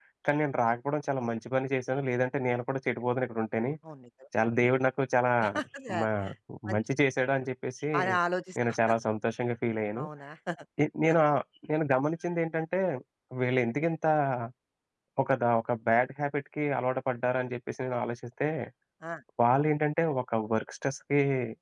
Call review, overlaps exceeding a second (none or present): none